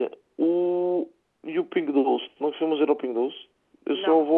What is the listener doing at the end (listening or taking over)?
listening